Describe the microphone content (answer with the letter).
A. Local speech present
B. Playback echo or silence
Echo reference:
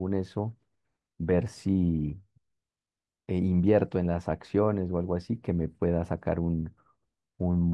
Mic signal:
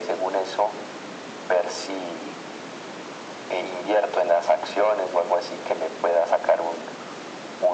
B